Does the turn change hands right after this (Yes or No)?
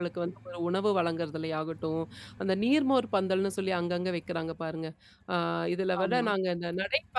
No